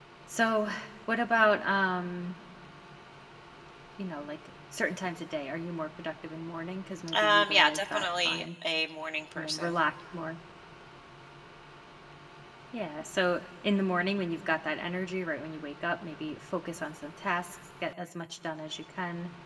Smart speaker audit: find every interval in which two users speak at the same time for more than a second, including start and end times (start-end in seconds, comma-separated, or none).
7.1-8.5